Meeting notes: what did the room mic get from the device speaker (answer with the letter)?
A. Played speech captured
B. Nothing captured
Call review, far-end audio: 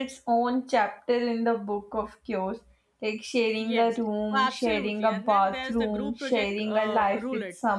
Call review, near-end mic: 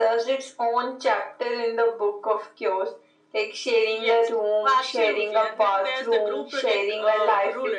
A